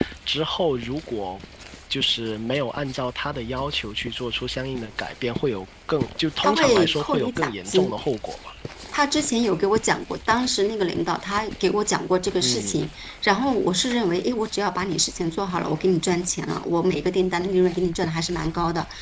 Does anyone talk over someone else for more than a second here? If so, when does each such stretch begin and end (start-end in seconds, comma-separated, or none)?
6.4-7.9